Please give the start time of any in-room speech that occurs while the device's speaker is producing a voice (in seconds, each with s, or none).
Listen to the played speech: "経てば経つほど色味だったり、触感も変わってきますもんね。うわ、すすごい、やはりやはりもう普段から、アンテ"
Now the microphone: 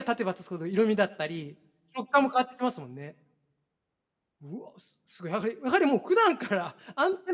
none